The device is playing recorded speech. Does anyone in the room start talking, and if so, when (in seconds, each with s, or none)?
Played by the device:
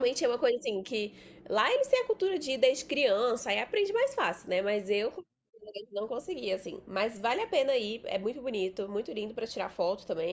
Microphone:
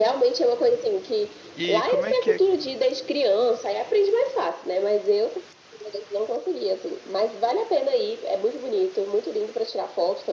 1.6 s